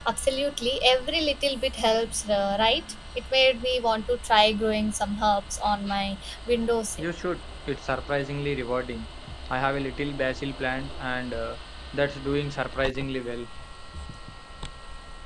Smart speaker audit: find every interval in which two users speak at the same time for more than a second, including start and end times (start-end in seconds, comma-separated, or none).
none